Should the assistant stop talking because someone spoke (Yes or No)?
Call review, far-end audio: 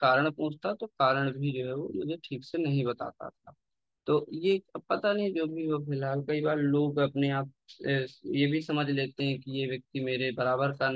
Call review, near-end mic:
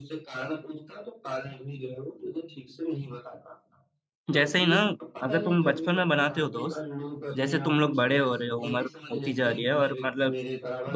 Yes